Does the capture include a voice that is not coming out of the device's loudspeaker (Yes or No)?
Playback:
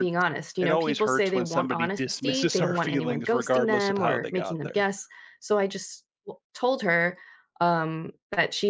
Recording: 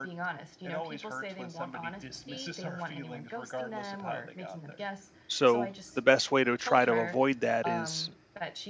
Yes